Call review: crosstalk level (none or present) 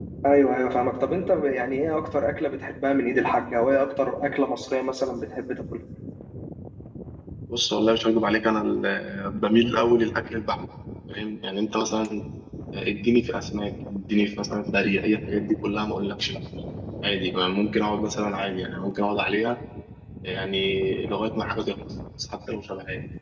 none